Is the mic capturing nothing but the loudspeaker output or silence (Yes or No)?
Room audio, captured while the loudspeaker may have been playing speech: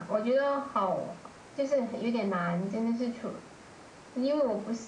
Yes